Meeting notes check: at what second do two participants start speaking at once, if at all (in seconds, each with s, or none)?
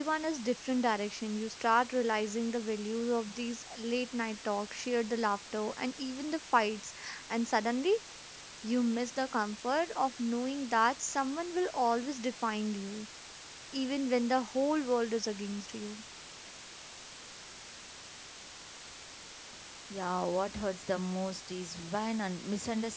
none